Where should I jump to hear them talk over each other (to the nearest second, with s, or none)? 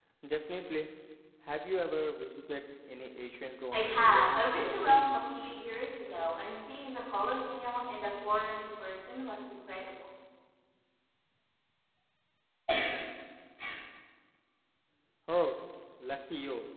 4 s